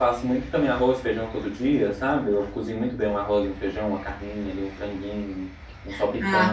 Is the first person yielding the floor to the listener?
Yes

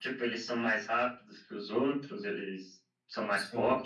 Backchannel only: No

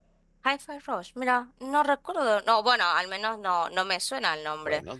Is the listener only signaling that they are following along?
No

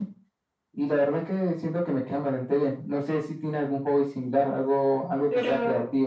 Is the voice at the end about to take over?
Yes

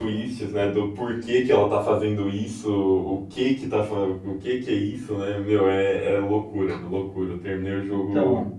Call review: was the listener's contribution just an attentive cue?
Yes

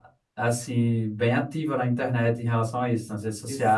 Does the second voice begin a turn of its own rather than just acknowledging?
Yes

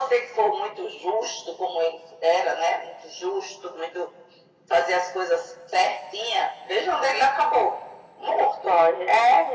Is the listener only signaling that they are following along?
No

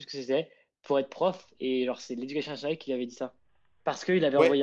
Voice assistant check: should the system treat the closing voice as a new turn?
No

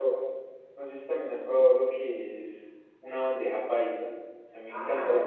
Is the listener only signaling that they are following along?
No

